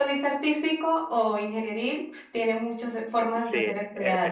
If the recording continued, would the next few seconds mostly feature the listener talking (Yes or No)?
Yes